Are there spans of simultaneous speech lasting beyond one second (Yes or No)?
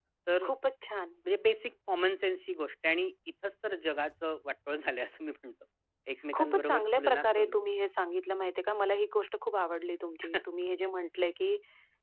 Yes